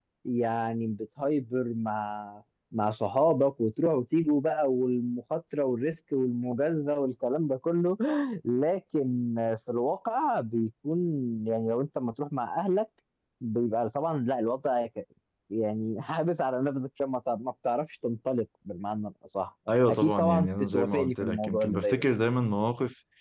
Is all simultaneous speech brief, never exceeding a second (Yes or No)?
No